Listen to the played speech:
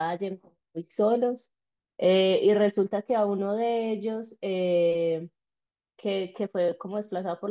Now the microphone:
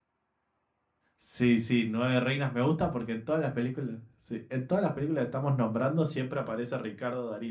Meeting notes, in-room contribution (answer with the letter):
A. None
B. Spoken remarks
B